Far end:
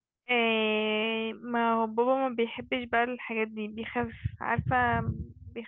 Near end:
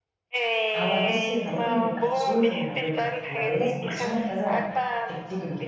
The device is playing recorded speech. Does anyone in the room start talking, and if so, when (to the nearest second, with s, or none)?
1 s